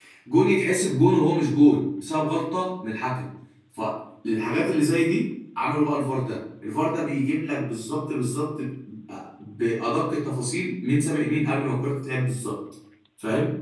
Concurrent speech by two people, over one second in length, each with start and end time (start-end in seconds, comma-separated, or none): none